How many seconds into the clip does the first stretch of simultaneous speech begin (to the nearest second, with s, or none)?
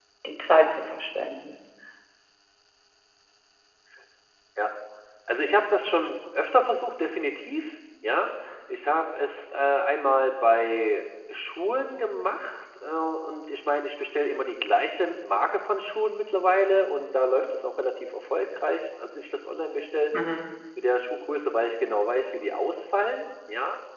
none